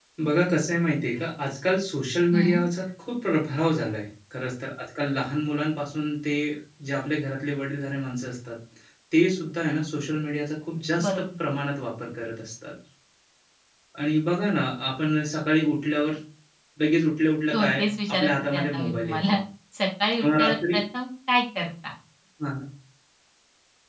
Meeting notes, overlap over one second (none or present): present